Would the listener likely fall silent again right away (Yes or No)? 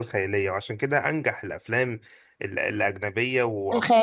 Yes